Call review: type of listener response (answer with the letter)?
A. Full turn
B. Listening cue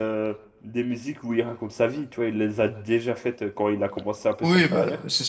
A